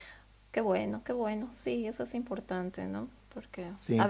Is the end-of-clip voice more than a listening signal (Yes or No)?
No